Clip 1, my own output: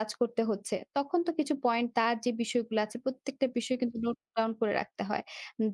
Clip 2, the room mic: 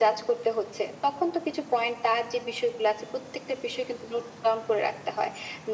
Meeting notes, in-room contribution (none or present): none